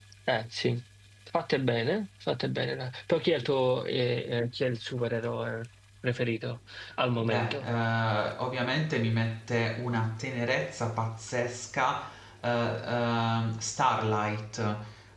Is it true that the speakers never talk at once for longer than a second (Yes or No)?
Yes